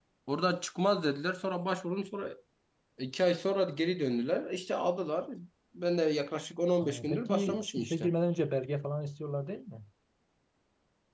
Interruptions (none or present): present